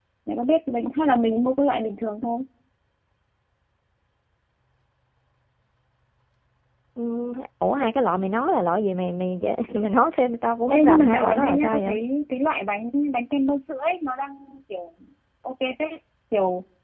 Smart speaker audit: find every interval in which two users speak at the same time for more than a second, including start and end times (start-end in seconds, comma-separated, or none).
10.7-12.0